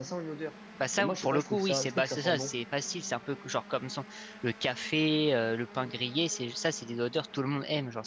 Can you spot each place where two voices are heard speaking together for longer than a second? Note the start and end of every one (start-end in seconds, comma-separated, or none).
1.0-2.5